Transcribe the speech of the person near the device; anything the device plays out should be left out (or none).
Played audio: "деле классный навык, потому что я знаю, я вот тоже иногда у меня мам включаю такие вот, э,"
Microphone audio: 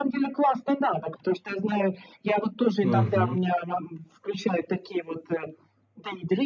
Мгм.